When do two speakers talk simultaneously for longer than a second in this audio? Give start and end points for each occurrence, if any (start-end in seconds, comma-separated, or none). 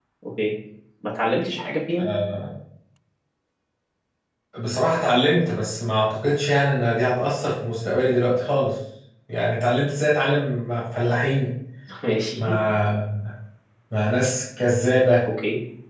none